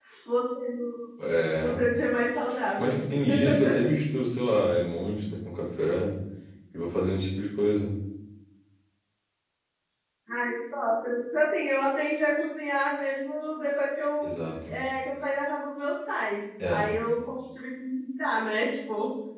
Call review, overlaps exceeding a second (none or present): none